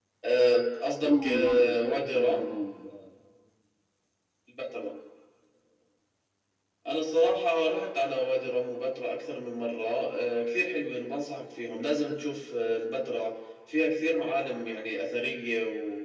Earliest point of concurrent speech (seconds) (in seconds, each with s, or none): 1.0 s